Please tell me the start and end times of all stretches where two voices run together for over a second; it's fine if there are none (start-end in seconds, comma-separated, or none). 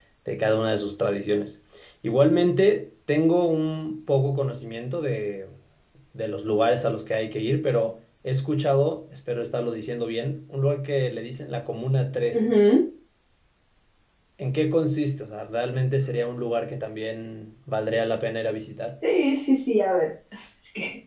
none